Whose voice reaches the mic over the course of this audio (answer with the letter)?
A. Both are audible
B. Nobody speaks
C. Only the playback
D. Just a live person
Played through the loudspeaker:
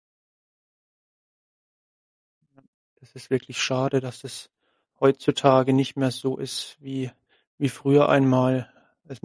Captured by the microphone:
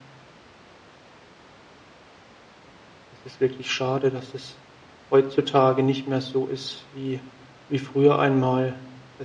C